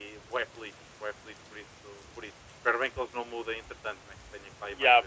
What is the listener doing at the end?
taking over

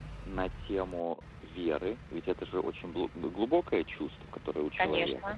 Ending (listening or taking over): listening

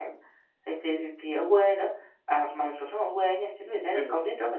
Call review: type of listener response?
listening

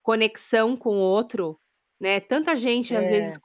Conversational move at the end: listening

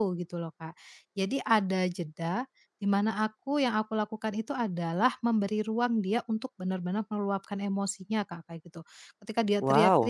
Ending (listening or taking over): listening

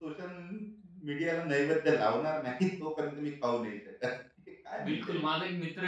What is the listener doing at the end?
taking over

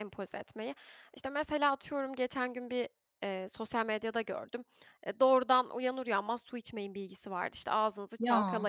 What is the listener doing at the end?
listening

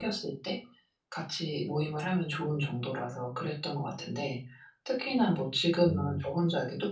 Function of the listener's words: listening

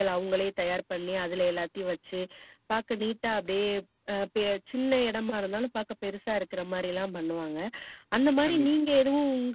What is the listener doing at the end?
listening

